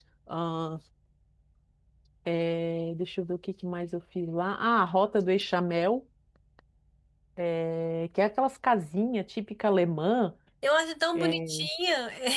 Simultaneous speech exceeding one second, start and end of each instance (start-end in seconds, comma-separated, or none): none